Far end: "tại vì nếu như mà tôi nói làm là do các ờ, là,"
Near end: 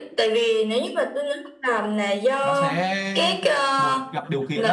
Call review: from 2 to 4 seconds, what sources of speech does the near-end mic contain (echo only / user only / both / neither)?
both